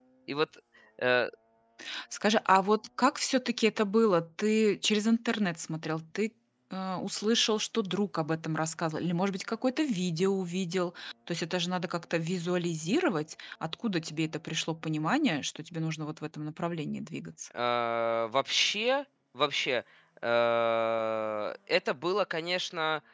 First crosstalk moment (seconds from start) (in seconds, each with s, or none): none